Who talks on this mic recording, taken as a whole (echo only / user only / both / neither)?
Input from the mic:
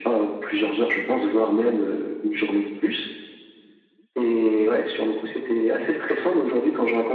echo only